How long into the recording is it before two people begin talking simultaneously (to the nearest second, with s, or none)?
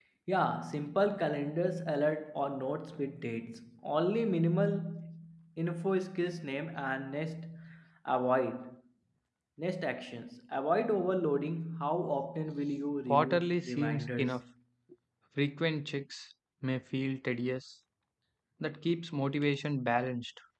13 s